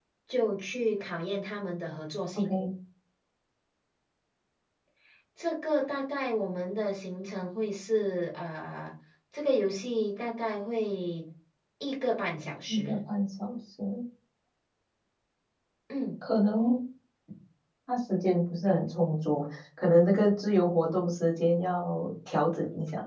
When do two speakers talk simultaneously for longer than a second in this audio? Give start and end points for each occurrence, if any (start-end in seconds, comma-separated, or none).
none